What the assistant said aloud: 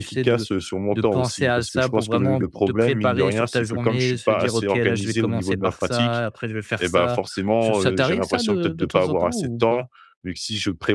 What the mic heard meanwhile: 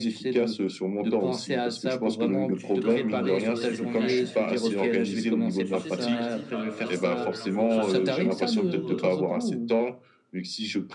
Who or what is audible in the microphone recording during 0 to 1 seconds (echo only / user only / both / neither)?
echo only